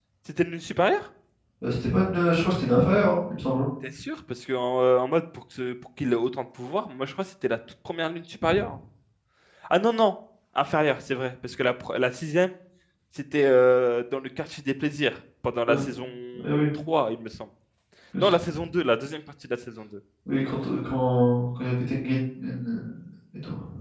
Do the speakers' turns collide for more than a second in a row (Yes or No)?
No